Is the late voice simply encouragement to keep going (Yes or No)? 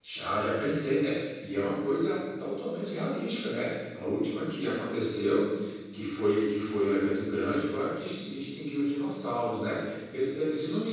Yes